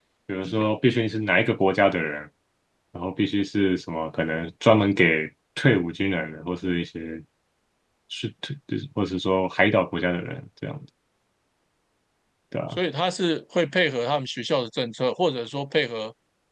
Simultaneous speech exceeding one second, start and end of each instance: none

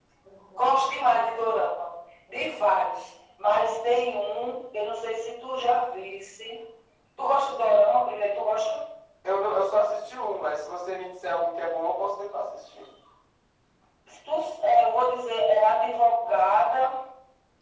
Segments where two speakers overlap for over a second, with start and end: none

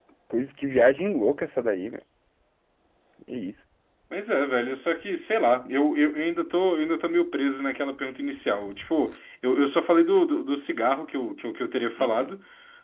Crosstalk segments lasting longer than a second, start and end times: none

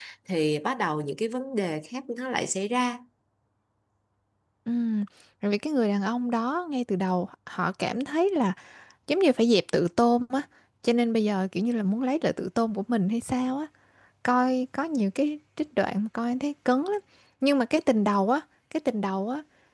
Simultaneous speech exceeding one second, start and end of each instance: none

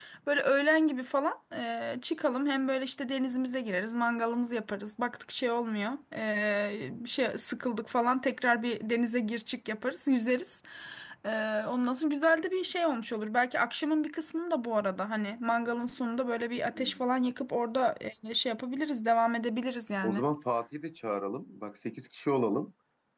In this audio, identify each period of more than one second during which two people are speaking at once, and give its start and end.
none

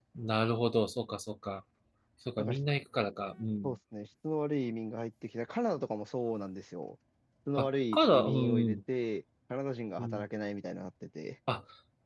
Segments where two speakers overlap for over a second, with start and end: 7.6-8.8

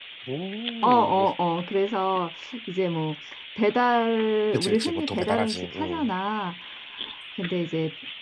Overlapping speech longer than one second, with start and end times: 4.5-6.1

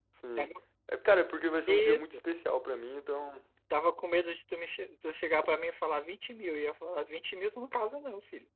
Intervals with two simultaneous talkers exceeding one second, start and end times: none

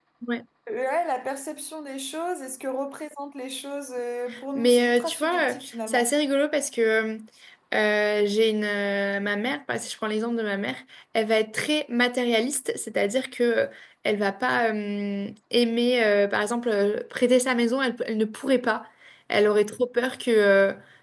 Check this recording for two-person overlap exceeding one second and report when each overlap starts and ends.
4.5-6.1

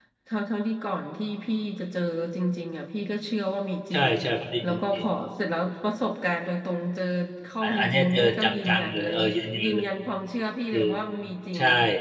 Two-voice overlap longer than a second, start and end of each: 7.6-9.2

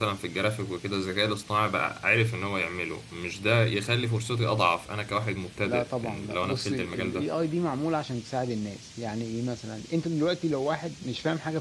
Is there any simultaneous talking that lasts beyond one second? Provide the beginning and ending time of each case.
5.7-7.3

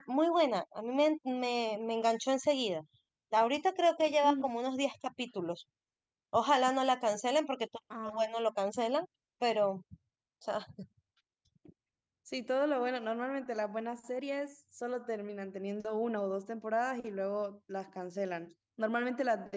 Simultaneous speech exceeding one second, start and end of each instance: none

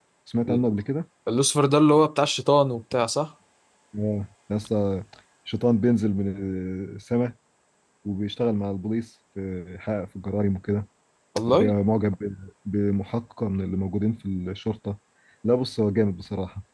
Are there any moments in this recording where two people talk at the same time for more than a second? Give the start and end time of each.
none

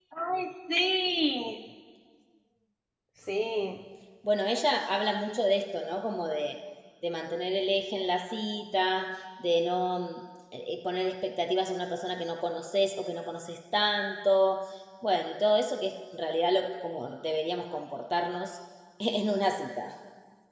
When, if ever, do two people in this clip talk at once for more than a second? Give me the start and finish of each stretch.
none

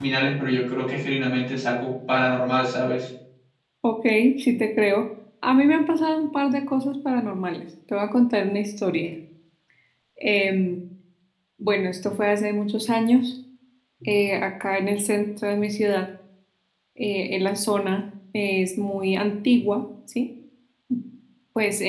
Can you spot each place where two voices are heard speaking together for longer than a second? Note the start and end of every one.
none

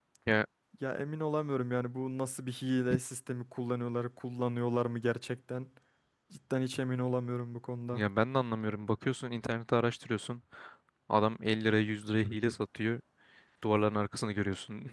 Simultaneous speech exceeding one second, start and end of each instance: none

